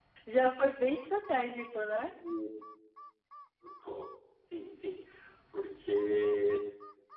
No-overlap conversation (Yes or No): Yes